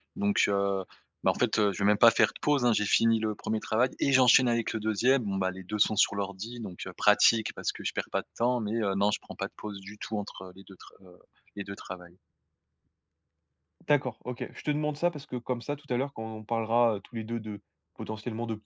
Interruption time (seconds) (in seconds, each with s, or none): none